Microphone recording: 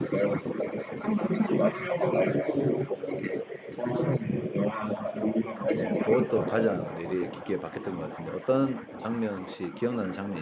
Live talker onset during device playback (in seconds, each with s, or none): 5.8 s